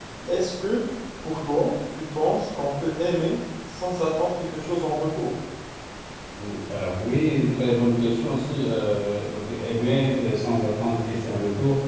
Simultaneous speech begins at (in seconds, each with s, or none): none